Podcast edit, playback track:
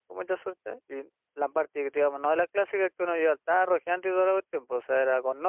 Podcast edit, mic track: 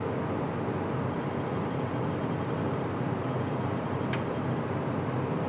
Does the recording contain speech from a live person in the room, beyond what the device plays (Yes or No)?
No